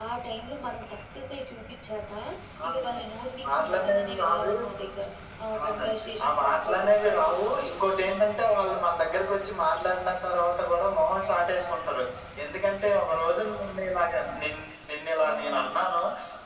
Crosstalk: present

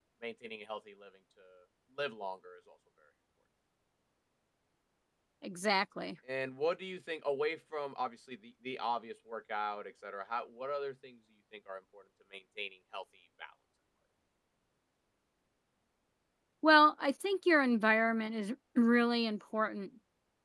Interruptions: none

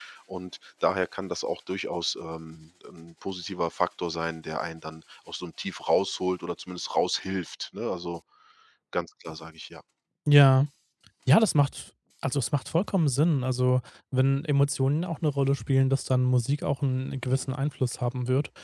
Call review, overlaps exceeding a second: none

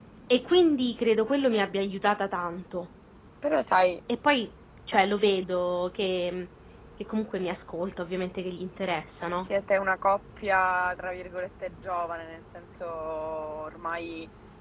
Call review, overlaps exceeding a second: none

